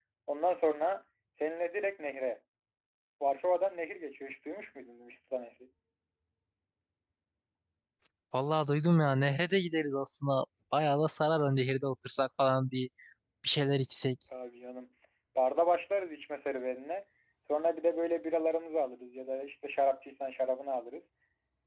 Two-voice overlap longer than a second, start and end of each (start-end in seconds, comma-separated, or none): none